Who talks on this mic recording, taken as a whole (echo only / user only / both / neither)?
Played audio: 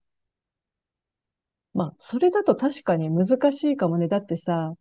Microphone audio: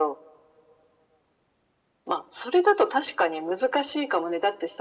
echo only